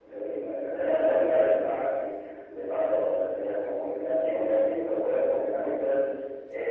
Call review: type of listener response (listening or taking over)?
listening